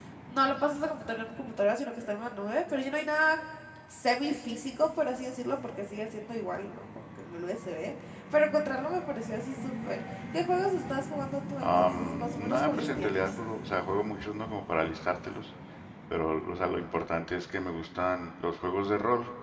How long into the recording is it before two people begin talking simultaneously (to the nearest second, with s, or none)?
12 s